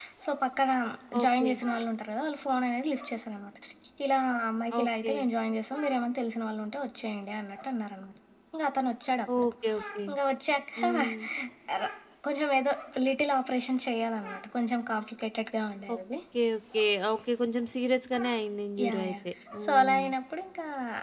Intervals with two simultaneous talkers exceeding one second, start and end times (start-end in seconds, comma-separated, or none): none